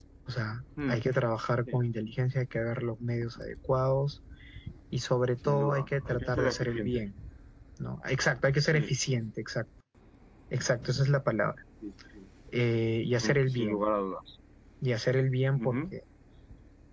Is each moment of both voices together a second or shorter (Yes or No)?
No